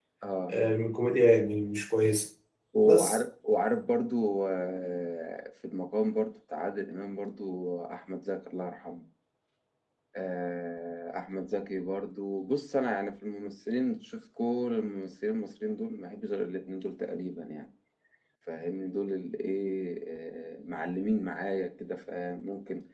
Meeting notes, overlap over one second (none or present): none